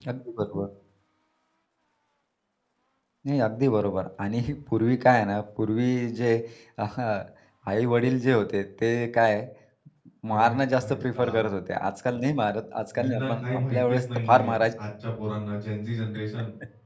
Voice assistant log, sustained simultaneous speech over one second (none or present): present